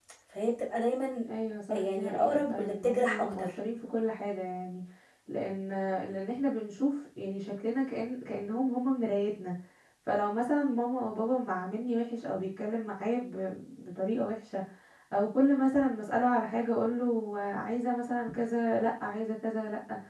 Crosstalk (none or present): present